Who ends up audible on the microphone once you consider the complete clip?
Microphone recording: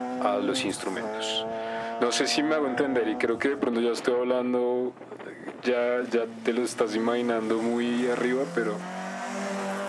echo only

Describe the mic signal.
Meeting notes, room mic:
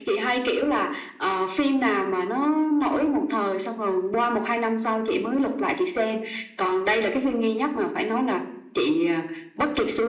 echo only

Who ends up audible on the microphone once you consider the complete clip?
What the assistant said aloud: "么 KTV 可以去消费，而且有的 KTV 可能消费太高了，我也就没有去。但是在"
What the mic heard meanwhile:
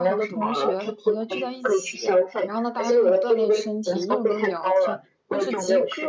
both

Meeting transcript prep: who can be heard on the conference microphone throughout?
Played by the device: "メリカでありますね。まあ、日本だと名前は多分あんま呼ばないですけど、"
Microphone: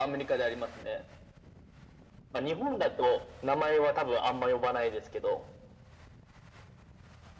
echo only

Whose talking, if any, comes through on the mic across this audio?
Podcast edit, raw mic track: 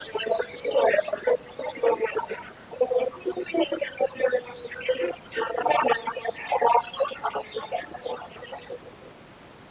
echo only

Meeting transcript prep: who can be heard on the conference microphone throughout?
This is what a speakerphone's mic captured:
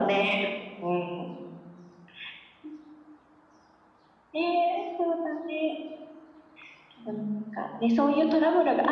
echo only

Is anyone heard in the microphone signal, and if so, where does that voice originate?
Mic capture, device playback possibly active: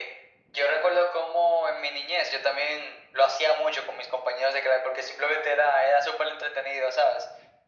echo only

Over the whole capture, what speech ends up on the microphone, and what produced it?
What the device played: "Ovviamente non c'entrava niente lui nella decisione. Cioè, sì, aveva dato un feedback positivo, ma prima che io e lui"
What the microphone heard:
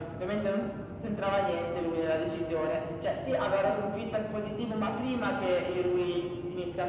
echo only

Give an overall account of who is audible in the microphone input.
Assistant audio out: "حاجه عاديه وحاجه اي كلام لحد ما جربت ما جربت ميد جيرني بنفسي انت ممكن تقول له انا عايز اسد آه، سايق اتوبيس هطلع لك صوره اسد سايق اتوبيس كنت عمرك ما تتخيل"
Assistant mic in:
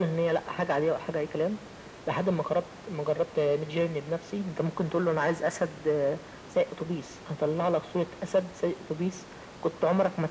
echo only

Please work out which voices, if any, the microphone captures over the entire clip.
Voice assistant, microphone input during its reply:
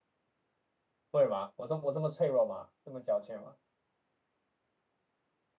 user only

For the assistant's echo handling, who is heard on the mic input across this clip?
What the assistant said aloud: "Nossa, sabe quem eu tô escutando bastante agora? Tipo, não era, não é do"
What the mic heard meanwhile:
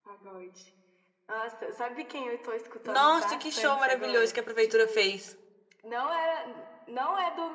both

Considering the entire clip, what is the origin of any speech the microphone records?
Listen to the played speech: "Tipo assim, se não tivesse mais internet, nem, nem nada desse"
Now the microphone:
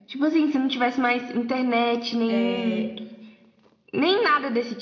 both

